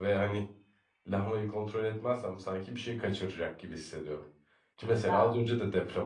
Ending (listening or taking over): listening